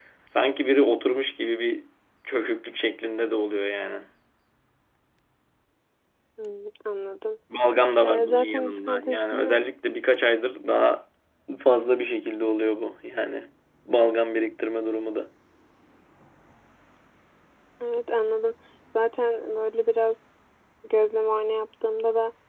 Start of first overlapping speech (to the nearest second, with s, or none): 8 s